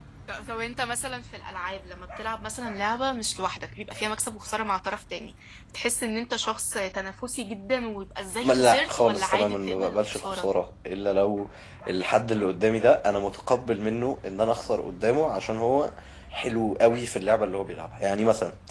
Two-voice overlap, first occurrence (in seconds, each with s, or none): 8.4 s